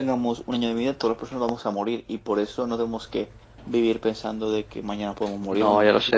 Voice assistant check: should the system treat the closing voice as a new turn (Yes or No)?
Yes